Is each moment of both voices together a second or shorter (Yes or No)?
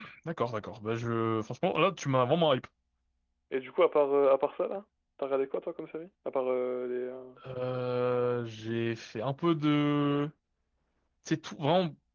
Yes